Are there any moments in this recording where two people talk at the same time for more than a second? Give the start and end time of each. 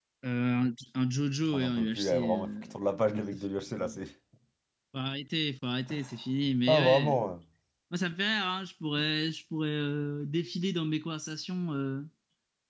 1.5-2.7

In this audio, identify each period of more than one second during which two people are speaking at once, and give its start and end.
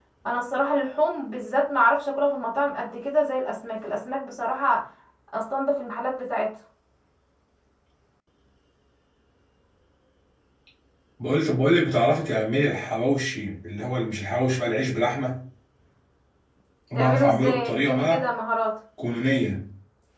16.9-18.2

